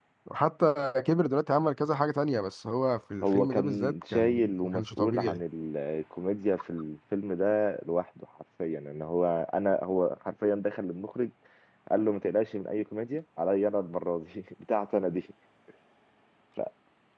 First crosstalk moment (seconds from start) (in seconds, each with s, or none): 3.2 s